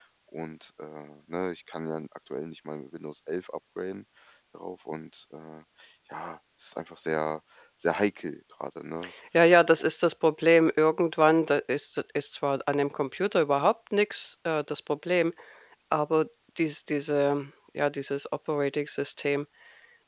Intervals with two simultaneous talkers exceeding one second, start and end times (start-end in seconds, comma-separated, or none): none